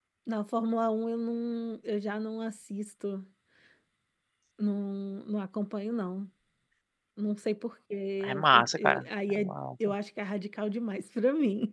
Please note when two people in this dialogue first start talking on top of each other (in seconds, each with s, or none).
8.2 s